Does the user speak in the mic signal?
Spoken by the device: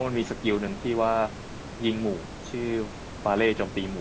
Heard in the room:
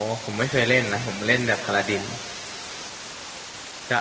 Yes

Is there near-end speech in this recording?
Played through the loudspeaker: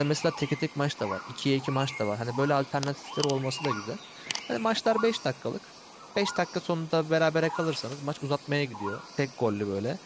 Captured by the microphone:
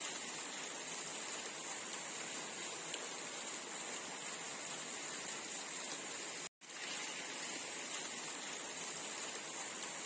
No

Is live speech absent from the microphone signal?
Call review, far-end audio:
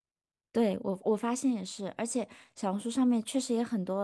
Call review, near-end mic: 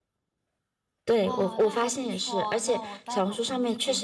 No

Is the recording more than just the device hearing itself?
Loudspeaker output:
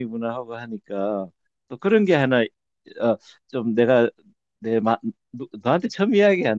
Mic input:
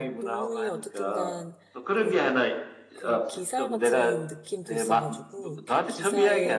Yes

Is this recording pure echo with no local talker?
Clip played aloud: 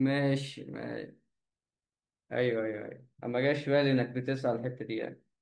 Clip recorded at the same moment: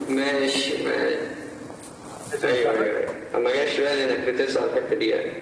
No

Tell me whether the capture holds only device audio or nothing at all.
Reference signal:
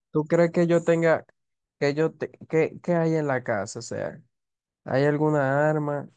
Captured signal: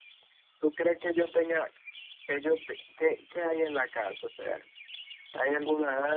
Yes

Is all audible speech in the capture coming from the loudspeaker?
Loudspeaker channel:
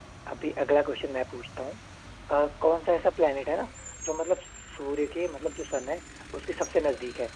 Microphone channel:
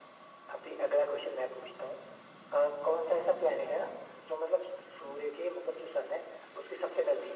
Yes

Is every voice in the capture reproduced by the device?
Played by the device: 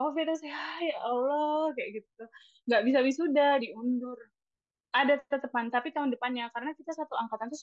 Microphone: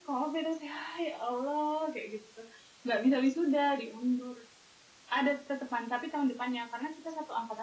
Yes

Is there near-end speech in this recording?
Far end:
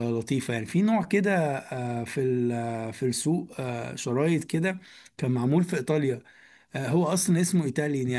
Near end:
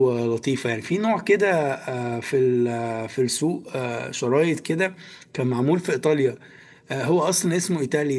No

